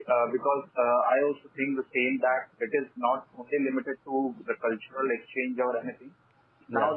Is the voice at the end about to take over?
No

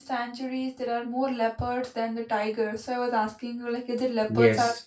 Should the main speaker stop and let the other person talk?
Yes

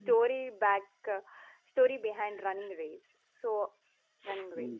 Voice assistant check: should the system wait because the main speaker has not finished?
No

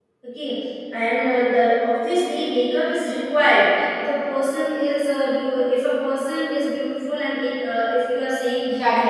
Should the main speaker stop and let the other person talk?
Yes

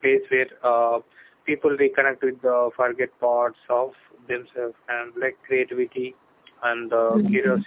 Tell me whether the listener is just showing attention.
Yes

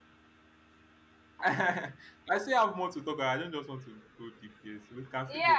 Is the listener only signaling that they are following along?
No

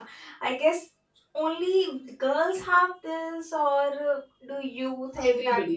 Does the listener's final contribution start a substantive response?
Yes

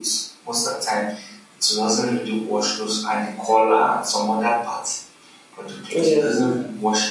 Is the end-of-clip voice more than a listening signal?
No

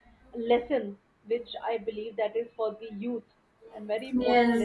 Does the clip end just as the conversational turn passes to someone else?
Yes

